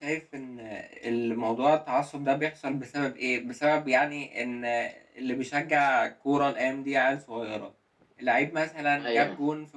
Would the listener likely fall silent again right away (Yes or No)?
Yes